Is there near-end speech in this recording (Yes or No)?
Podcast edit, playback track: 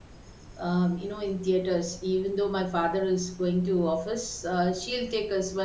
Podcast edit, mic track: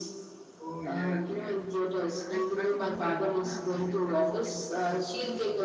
Yes